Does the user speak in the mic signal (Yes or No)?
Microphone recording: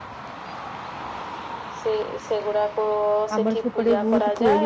Yes